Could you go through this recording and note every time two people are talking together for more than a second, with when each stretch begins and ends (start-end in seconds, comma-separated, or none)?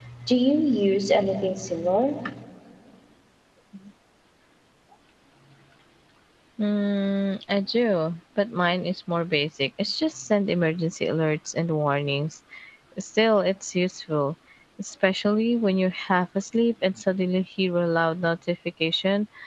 none